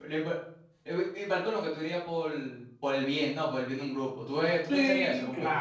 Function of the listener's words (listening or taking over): taking over